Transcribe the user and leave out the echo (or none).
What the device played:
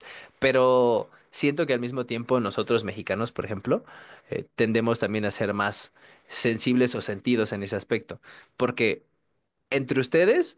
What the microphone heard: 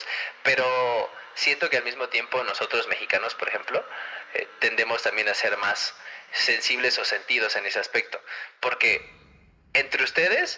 none